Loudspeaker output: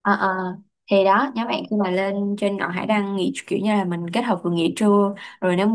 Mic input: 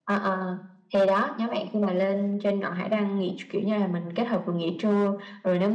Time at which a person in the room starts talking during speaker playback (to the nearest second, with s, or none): none